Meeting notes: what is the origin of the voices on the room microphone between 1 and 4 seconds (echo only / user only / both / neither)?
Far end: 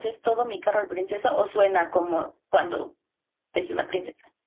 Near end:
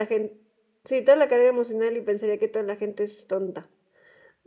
user only